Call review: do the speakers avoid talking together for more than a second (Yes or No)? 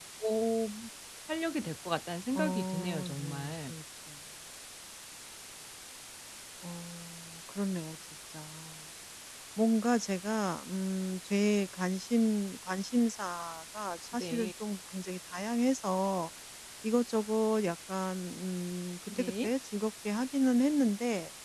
No